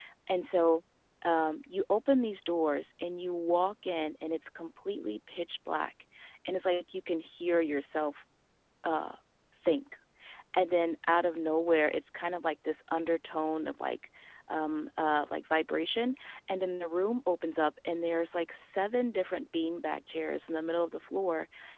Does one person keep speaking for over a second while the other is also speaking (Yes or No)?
No